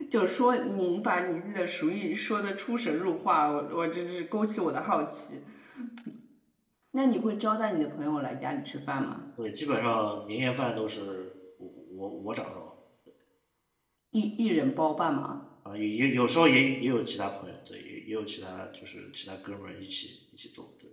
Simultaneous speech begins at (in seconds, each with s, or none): none